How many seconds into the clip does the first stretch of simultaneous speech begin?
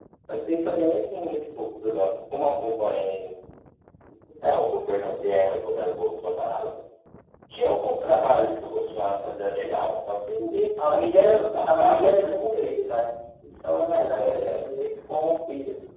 11 s

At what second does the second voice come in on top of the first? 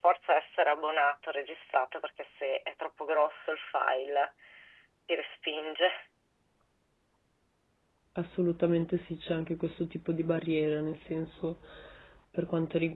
none

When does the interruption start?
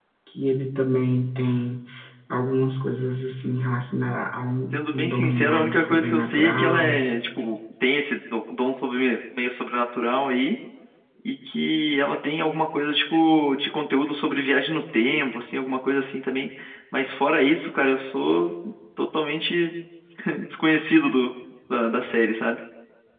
5 s

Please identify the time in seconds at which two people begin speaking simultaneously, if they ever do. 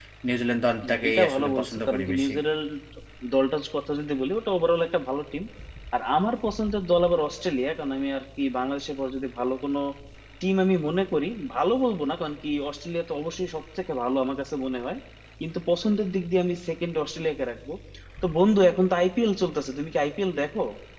1 s

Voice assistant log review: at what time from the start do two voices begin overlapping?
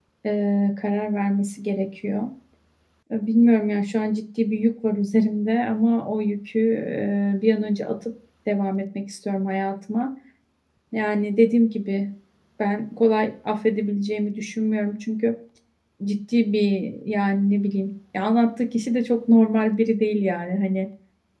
none

